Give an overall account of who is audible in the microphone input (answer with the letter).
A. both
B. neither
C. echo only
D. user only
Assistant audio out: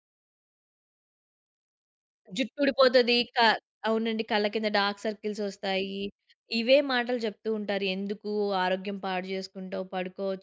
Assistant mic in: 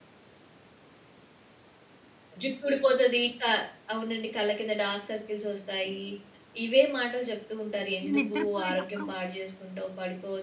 A